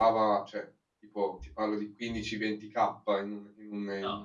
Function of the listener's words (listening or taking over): listening